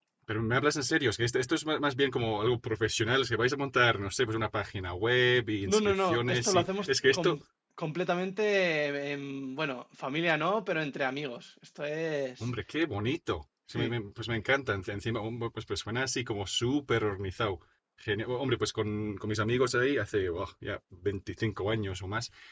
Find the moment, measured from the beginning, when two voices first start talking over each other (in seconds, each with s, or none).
5.7 s